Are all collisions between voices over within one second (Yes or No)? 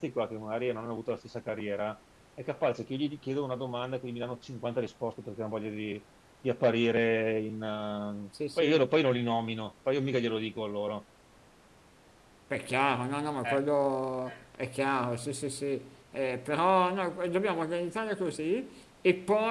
Yes